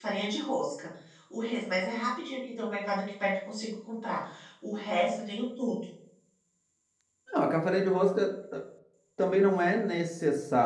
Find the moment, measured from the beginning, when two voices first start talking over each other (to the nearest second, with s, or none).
none